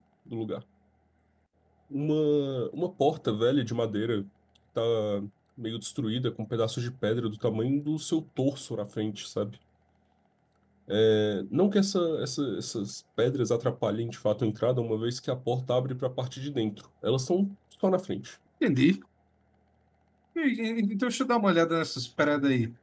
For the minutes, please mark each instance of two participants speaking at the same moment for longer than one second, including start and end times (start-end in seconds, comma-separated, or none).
none